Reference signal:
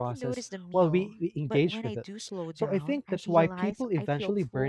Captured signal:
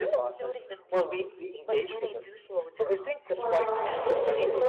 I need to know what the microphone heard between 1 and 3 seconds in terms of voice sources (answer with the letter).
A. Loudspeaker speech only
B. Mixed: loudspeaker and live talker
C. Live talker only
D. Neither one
A